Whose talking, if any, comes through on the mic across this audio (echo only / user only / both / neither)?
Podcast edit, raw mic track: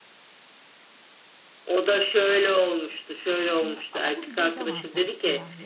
both